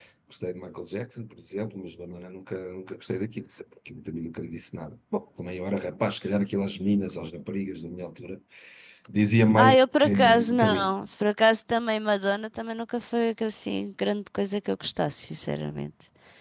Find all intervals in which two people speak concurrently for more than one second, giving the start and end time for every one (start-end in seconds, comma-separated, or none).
9.6-10.9